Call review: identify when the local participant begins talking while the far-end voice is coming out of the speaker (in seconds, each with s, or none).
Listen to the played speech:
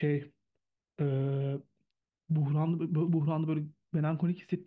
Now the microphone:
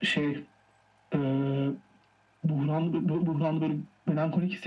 none